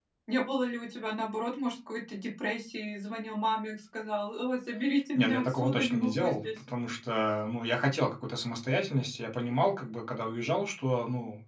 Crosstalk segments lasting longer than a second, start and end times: 5.2-6.5

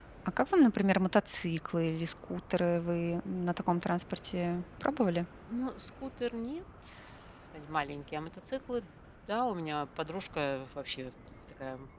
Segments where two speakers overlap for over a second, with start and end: none

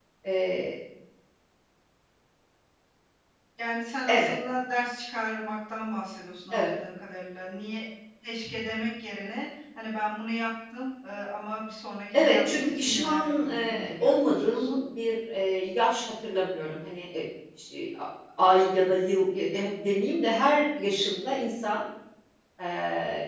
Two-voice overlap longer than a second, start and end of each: 12.1-14.8

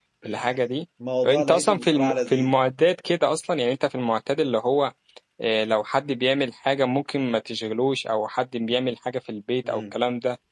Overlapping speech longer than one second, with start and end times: 1.2-2.5

